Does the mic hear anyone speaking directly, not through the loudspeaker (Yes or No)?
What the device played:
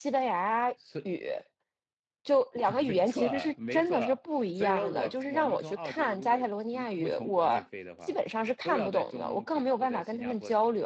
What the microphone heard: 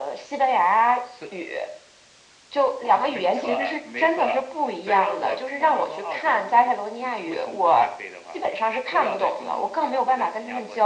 No